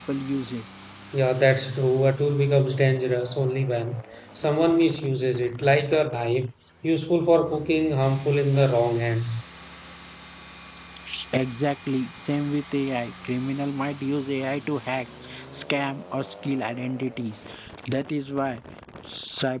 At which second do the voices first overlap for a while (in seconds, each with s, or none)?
none